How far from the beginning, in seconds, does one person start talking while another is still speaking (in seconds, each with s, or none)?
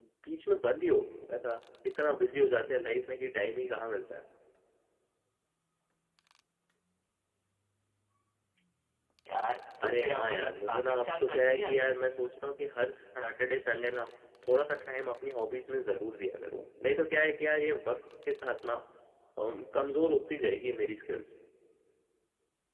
9.8 s